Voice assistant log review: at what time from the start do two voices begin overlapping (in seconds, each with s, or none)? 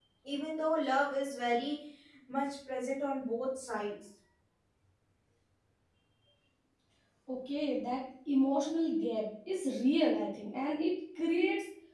none